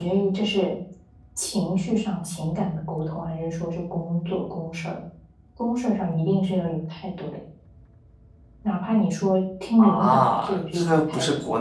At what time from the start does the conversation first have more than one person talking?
9.8 s

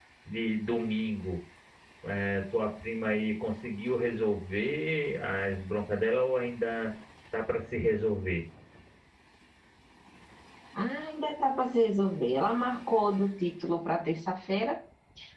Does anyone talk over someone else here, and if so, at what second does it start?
none

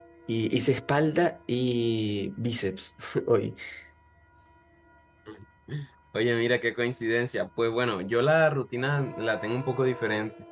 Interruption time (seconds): none

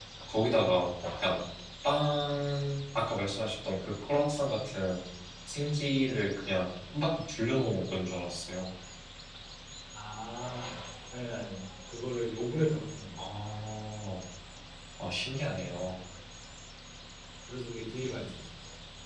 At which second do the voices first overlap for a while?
none

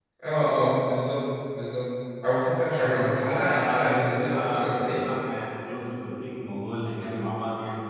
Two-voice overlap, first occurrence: 2.7 s

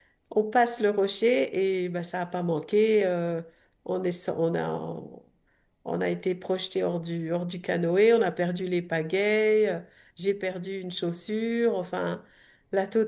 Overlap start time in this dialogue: none

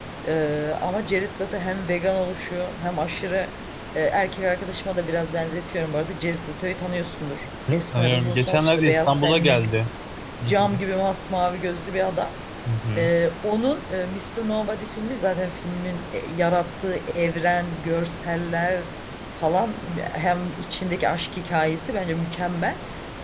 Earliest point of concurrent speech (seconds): 7.7 s

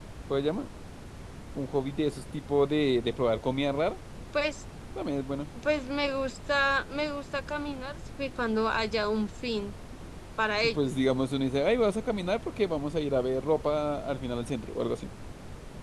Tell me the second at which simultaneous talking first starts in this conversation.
none

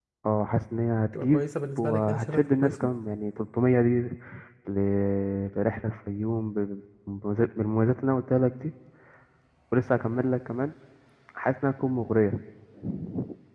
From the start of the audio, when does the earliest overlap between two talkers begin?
1.1 s

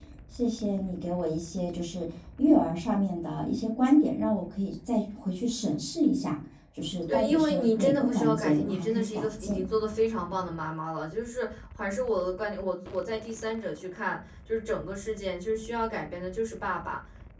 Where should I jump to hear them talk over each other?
7.1 s

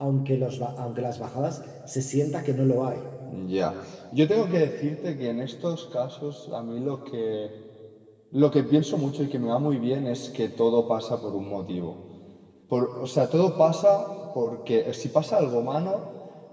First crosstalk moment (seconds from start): none

